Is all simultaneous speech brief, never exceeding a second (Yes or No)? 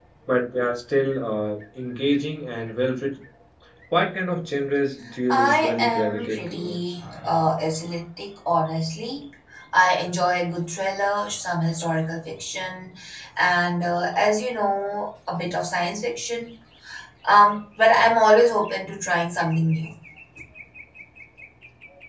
No